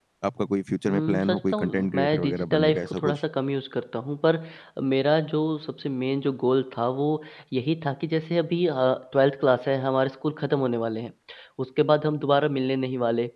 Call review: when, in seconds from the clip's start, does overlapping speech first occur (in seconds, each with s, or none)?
0.9 s